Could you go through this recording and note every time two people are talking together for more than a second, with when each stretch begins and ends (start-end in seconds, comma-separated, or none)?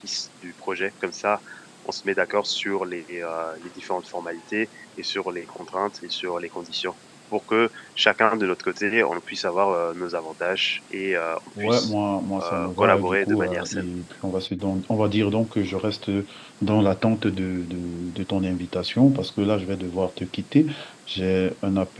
12.4-13.8